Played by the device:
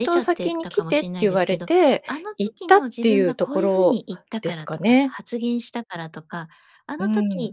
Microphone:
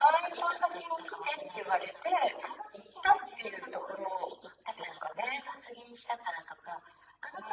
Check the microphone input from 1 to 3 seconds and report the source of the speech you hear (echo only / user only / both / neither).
echo only